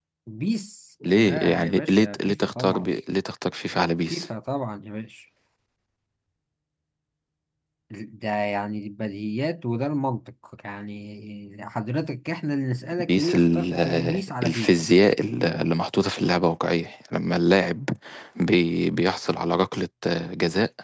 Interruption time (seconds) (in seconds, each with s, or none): 1.2 s